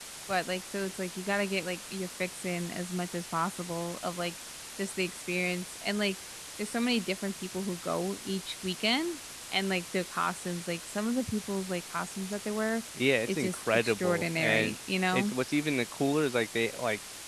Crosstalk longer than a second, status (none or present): present